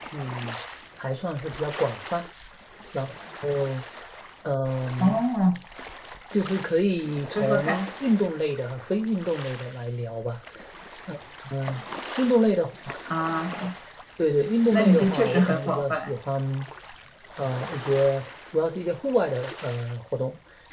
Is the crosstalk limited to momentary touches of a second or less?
No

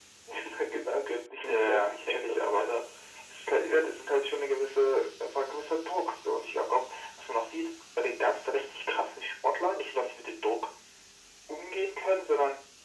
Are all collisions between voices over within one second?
No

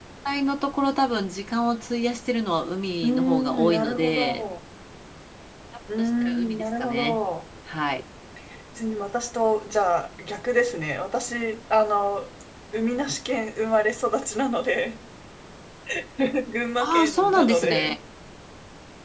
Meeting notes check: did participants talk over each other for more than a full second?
Yes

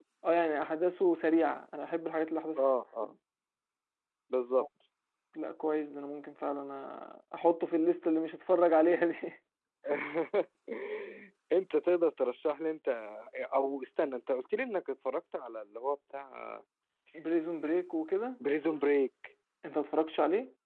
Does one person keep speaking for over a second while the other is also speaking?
No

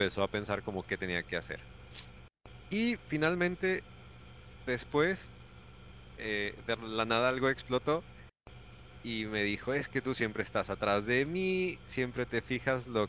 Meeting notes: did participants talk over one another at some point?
No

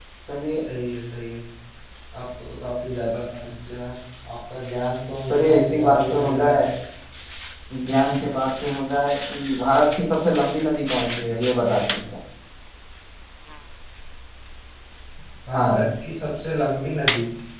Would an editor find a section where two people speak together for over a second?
Yes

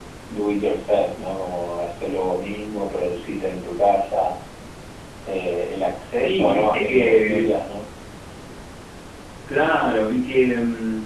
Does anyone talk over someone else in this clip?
Yes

